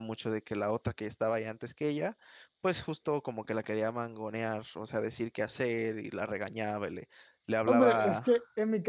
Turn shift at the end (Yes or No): Yes